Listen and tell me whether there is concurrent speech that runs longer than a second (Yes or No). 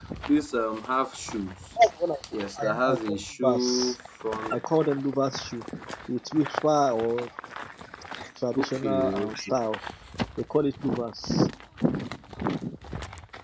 Yes